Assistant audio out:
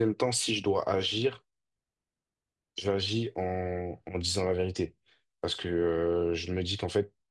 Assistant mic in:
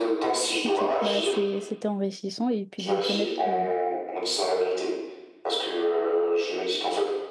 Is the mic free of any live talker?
No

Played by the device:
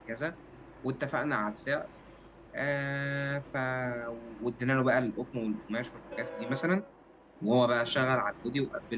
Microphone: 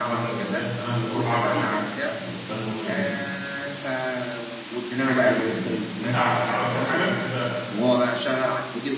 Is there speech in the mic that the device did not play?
Yes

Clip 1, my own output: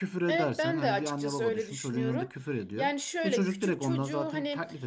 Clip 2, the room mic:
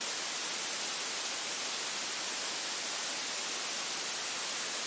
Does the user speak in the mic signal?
No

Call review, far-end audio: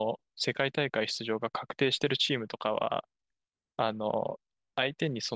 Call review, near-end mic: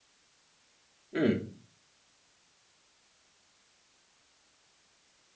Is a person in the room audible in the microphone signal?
Yes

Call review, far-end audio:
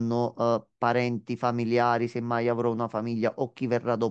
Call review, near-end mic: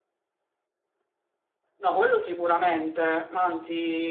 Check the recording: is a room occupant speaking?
Yes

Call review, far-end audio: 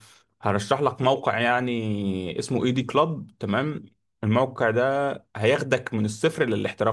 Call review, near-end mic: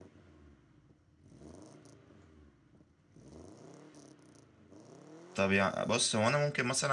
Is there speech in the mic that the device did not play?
Yes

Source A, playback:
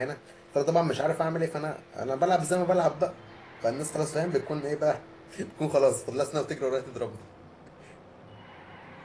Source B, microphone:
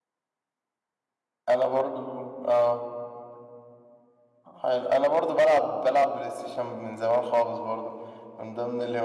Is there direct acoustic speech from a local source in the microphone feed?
Yes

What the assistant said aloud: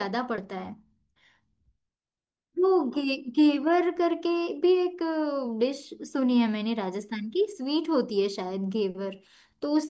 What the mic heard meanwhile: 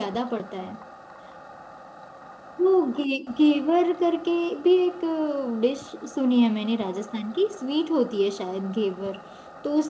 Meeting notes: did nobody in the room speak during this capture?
Yes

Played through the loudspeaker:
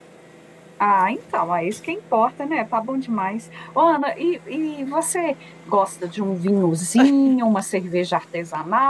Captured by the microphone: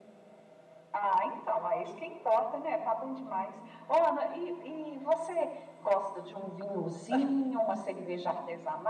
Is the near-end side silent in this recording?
Yes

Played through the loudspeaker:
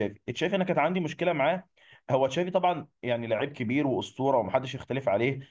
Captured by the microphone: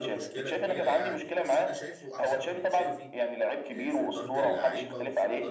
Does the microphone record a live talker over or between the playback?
Yes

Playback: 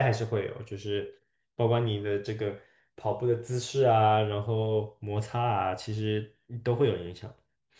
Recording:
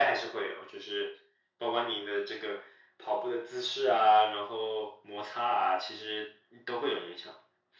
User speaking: No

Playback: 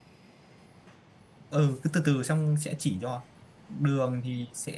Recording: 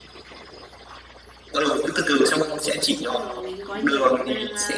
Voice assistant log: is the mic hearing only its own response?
No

